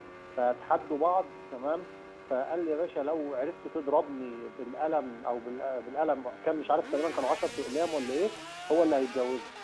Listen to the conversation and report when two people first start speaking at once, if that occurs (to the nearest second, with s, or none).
none